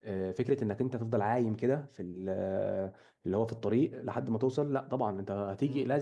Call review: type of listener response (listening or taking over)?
listening